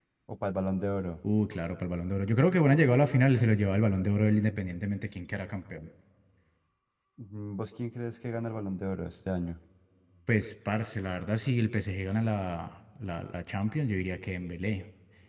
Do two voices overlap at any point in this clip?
No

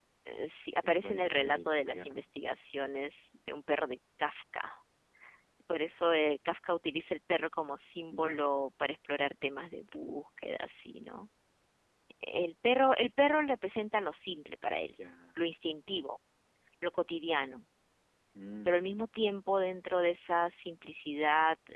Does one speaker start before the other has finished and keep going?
Yes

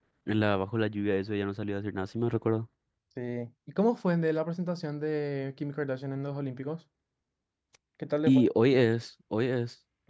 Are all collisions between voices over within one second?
Yes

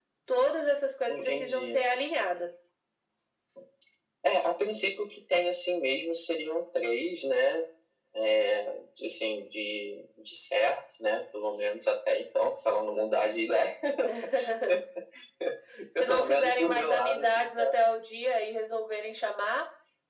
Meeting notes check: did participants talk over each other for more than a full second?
Yes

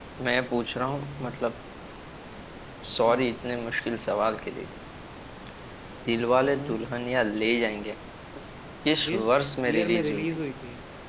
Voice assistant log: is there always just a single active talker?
No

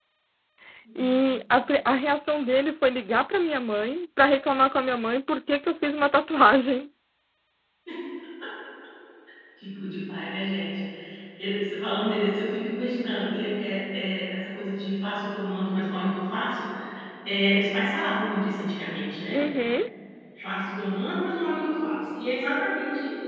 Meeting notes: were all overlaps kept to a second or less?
Yes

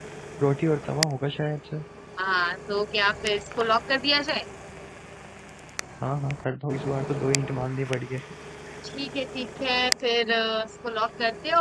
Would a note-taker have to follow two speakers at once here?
No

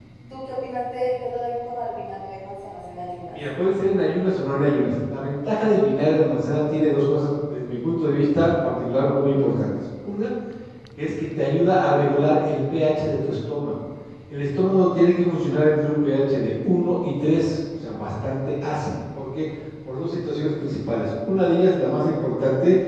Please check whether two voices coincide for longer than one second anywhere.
No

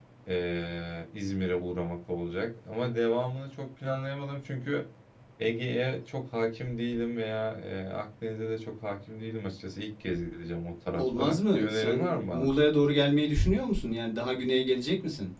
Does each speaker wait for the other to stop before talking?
No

